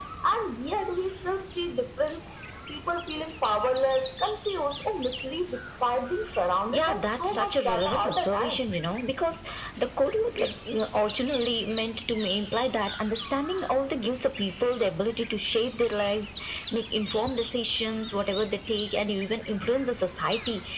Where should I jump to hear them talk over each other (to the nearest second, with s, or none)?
7 s